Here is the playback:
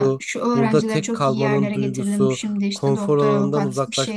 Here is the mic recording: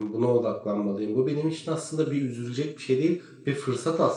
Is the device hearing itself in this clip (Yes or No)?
No